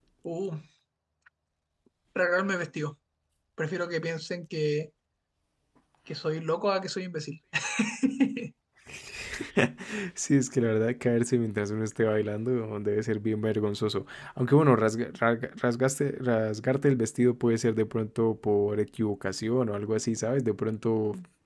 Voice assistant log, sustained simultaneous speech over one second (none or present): none